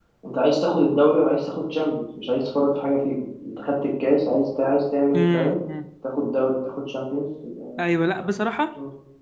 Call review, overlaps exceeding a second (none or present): none